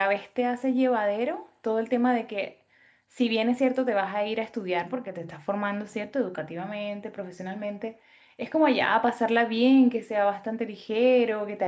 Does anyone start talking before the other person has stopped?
No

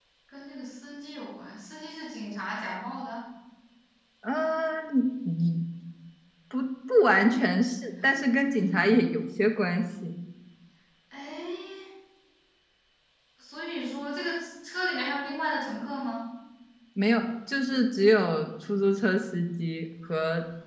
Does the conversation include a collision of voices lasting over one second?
No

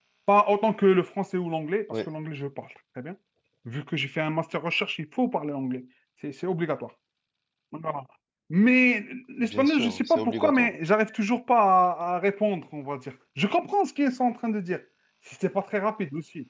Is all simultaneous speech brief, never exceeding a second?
No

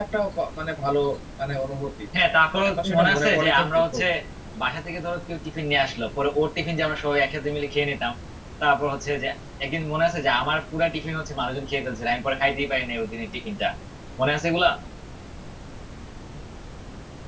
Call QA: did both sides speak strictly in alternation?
No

